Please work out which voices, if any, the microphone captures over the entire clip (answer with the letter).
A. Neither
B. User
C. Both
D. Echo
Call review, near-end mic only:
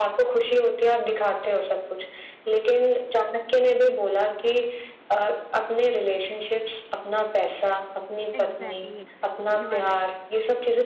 C